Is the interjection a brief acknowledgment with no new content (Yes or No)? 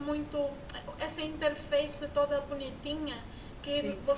Yes